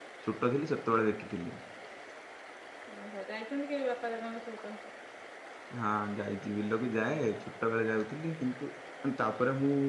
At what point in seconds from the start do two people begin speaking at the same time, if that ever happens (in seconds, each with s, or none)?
none